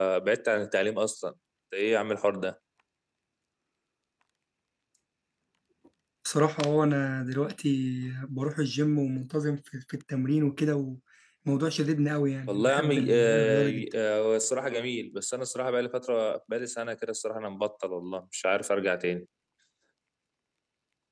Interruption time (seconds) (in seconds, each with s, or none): 12.5 s